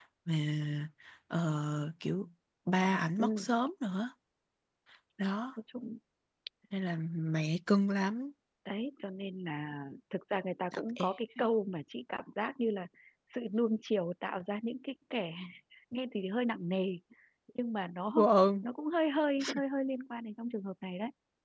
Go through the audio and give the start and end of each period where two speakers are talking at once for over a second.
none

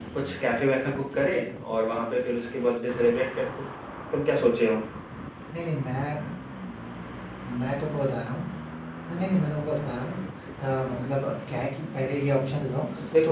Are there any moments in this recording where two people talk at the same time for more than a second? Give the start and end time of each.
none

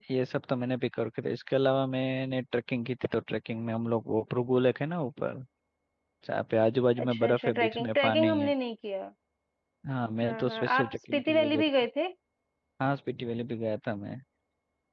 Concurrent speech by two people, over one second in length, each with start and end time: 7.0-8.5, 10.2-11.7

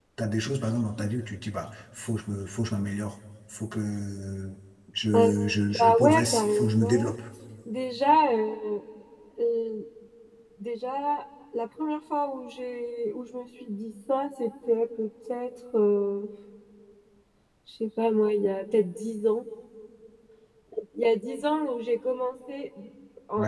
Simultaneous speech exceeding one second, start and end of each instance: 5.8-7.1

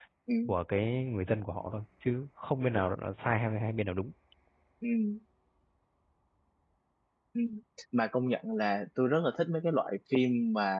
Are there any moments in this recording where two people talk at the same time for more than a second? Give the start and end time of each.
none

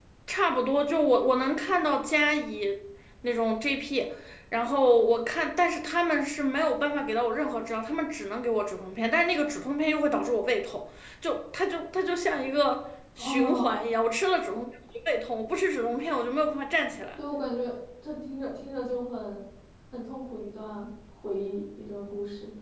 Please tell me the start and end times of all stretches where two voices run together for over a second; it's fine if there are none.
none

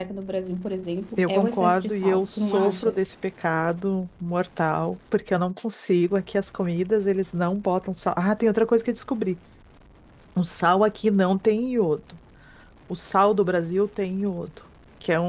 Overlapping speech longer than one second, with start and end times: 1.2-3.0

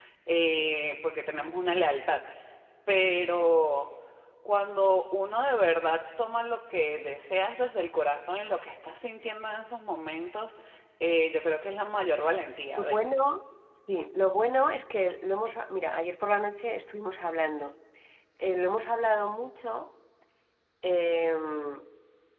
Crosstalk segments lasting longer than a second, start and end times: none

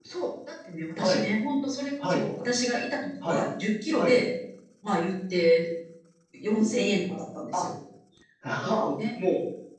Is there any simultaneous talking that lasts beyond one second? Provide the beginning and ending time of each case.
none

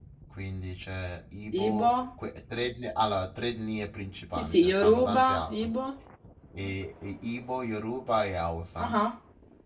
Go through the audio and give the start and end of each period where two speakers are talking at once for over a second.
4.4-5.7

